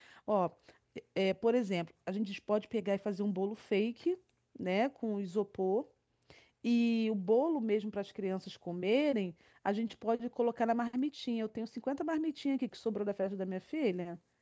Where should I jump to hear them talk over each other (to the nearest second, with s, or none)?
none